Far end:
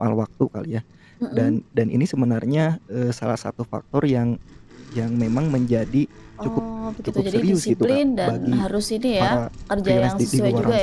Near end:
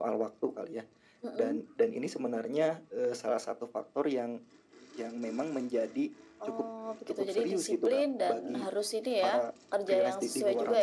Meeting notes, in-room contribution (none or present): none